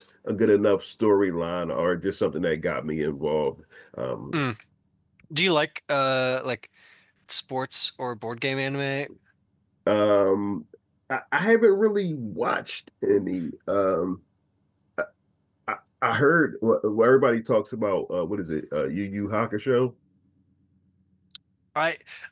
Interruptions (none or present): none